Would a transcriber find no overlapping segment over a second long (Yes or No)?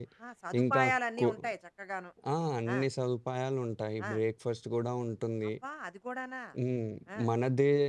Yes